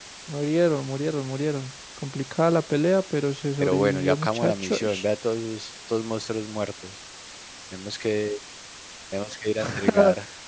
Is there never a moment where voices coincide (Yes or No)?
No